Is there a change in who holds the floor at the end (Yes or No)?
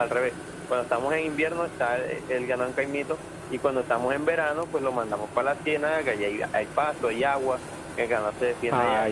Yes